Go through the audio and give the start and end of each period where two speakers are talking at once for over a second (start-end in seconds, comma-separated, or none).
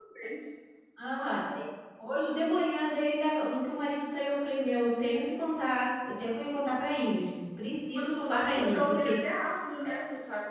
8.0-9.2